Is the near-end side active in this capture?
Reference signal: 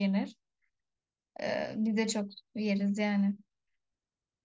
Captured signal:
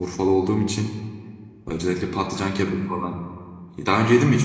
Yes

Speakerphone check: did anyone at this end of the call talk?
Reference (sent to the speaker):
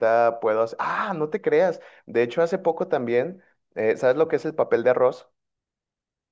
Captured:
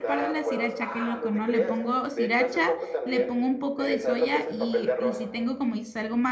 Yes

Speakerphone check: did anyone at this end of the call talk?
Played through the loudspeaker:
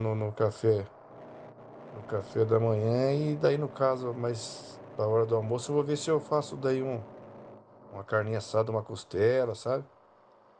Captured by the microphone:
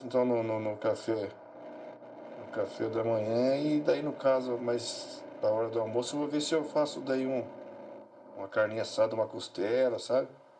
No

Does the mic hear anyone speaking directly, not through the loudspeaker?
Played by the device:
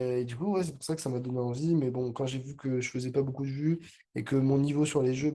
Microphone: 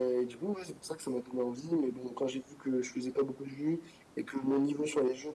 No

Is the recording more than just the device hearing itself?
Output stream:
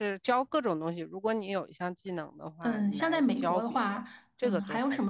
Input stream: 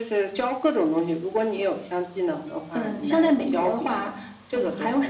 No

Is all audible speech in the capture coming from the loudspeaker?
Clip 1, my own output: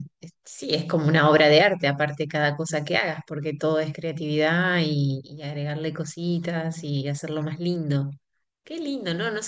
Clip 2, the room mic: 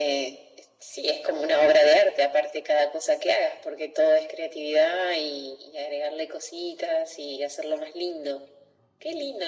Yes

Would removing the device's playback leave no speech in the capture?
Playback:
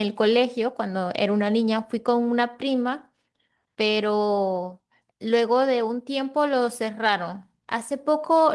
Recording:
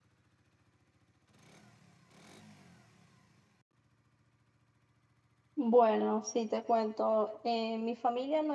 No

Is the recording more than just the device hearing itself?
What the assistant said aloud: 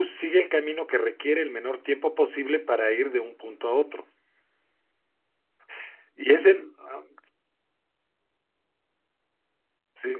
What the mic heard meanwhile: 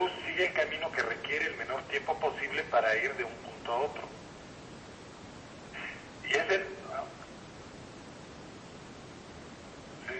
No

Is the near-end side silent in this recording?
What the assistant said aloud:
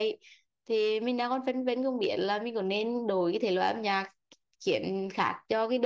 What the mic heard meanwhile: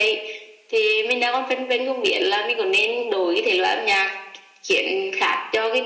Yes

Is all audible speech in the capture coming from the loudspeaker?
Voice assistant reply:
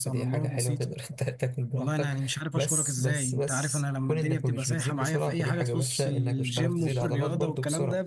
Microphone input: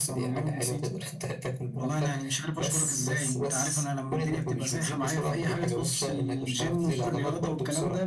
Yes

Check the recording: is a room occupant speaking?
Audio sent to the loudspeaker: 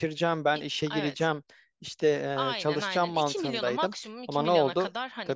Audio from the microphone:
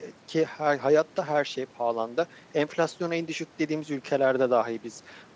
Yes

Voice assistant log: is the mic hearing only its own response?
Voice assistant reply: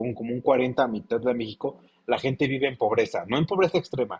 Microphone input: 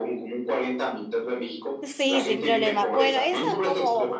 No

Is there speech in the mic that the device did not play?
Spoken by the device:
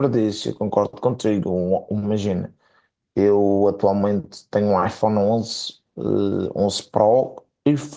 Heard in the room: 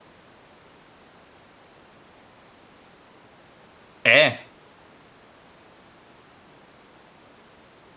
Yes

